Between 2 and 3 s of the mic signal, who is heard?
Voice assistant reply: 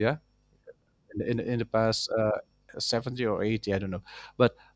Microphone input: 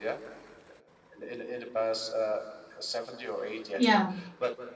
echo only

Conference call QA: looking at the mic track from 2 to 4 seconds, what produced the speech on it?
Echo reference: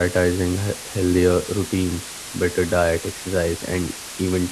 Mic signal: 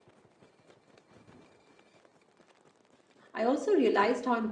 user only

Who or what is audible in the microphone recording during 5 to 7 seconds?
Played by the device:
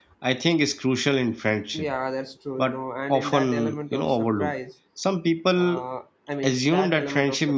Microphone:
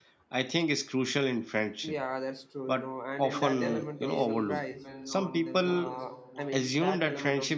both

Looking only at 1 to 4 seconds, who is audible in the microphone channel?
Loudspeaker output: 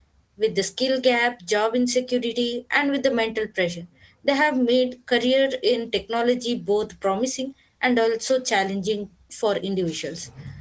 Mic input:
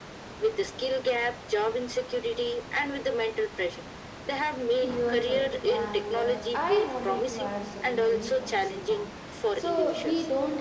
echo only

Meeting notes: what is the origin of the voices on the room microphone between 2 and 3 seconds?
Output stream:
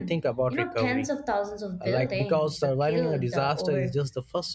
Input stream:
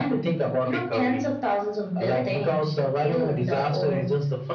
echo only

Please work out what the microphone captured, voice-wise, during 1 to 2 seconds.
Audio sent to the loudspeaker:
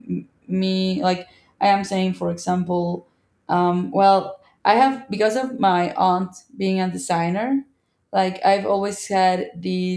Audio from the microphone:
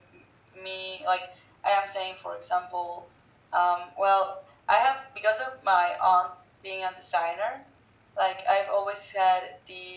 echo only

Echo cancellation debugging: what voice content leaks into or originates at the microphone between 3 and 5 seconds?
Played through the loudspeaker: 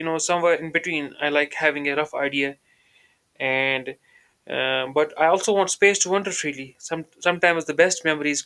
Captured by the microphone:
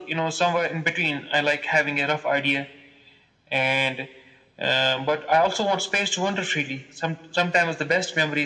echo only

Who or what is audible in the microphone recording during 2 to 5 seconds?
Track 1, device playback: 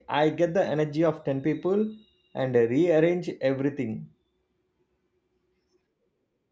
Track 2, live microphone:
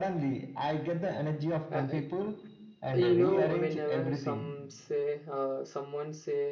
both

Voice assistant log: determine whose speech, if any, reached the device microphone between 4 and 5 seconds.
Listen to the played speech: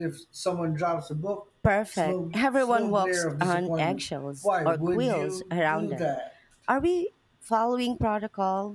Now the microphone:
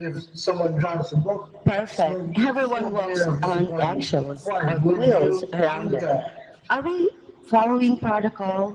echo only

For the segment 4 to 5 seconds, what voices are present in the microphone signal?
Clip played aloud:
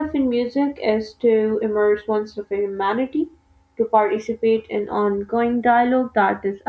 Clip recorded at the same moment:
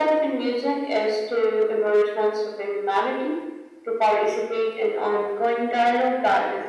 echo only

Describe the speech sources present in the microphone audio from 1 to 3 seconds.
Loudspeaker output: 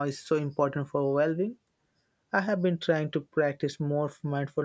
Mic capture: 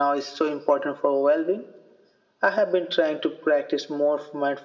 echo only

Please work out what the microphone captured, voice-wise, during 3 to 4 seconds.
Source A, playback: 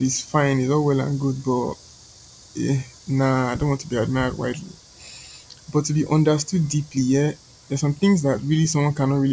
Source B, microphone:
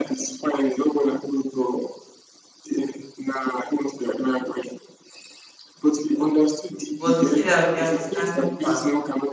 echo only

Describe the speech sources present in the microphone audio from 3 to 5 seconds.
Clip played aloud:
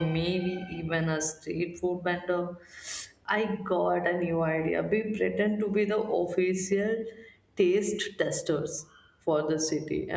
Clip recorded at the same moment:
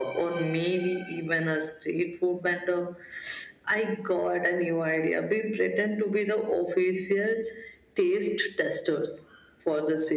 echo only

